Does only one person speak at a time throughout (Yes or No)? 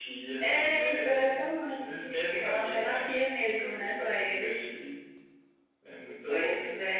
No